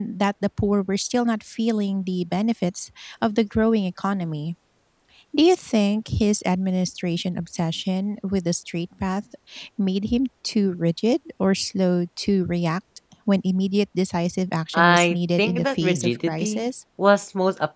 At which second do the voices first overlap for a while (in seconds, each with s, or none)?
14.7 s